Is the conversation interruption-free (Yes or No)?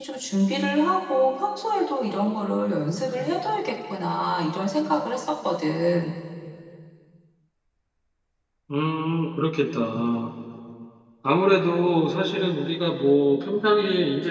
Yes